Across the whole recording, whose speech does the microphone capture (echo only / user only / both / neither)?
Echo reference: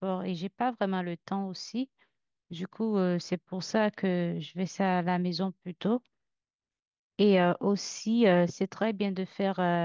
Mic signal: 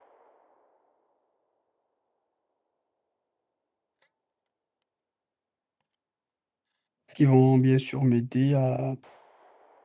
user only